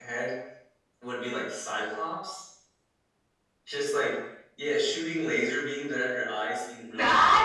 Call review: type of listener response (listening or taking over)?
listening